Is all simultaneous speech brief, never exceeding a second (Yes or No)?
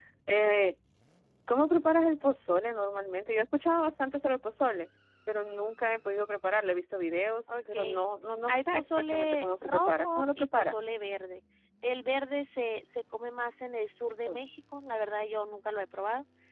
No